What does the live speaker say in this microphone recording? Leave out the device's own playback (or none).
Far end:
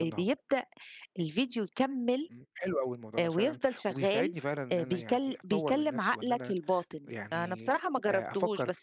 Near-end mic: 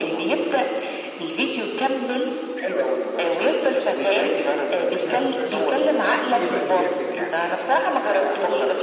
لأ ما سمعتش عنه، لأ احكِ لي بقى ده بيع بيعملوا فيه إيه بقى الموضوع ده؟